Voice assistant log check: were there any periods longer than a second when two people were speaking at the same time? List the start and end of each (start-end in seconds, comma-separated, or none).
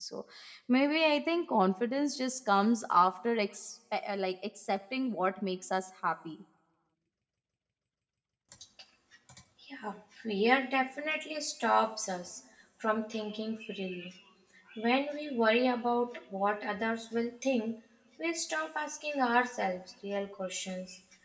none